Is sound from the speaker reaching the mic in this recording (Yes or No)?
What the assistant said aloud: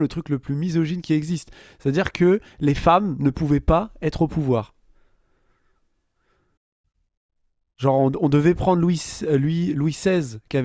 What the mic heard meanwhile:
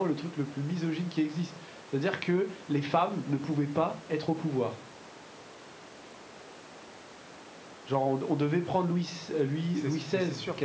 Yes